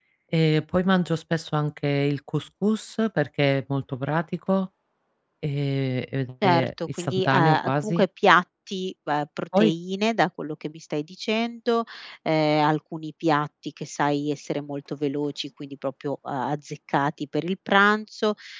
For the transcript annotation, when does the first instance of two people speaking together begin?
6 s

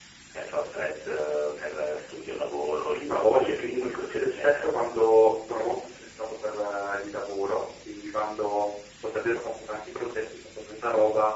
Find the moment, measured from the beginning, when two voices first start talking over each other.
3 s

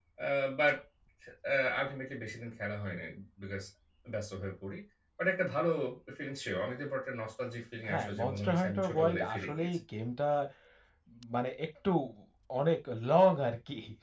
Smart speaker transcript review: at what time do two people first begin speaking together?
8 s

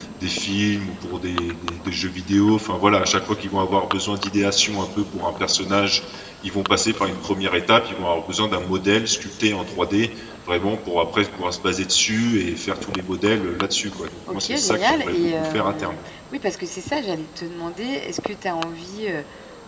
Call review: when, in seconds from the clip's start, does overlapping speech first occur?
14 s

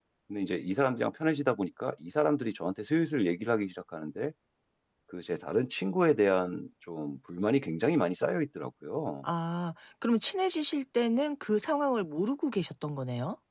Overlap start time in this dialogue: none

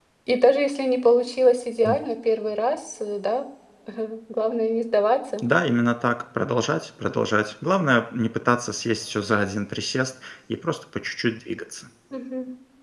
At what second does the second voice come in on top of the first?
none

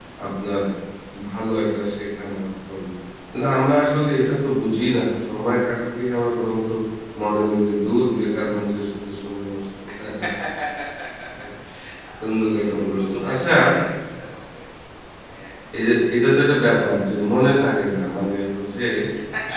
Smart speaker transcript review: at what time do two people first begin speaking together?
12 s

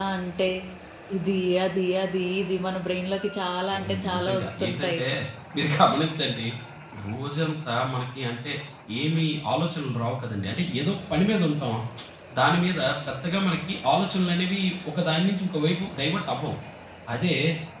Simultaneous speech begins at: 4 s

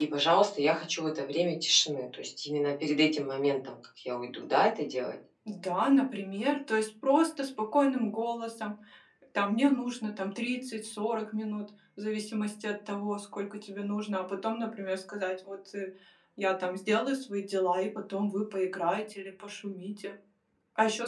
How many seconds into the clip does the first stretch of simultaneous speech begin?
none

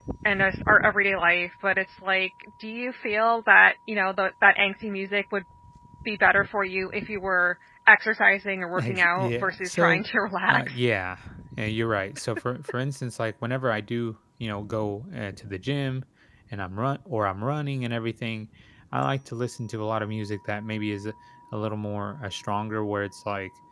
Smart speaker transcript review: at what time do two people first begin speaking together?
9 s

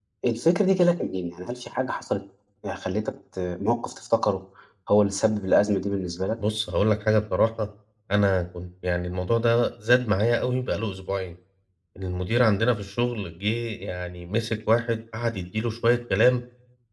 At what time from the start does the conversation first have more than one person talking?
none

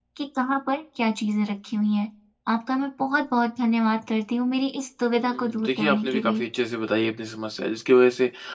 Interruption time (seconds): 5 s

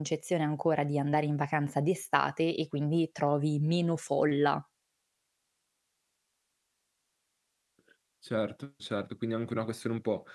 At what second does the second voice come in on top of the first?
none

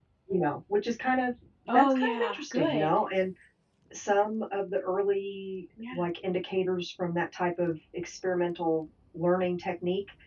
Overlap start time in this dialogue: 2 s

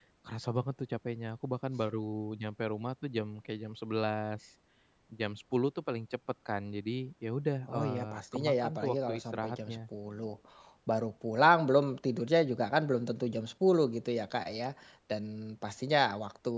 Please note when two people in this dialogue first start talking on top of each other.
8 s

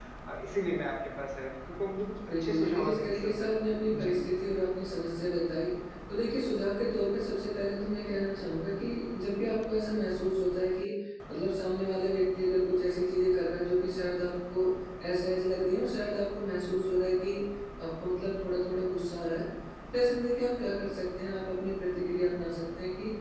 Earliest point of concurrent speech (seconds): 2 s

